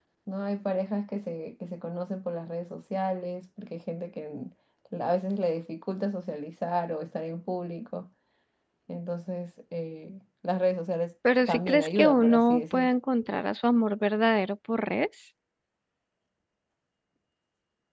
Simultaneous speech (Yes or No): Yes